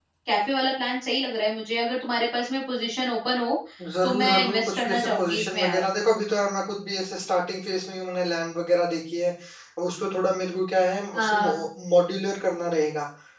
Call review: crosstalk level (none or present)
present